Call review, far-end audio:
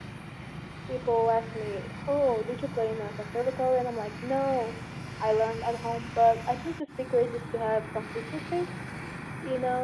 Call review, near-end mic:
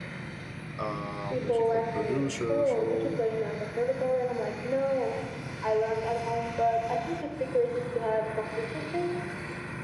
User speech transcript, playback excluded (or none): uh, musical producer so